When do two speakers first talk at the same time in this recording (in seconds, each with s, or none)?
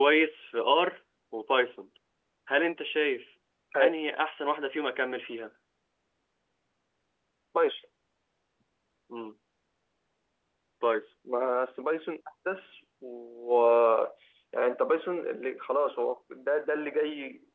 none